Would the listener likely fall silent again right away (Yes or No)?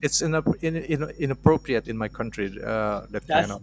No